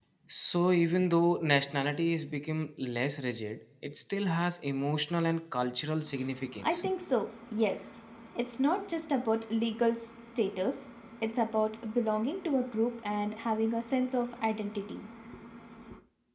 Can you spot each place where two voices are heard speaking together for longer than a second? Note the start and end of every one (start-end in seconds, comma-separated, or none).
none